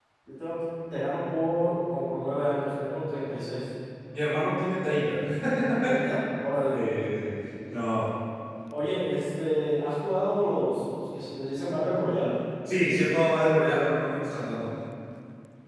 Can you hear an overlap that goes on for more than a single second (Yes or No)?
No